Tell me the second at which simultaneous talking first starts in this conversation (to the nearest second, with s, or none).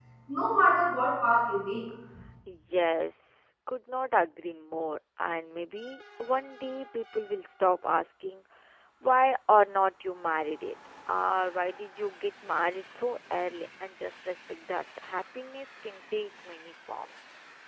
none